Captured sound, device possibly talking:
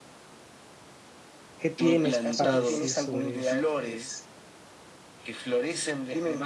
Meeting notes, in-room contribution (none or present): present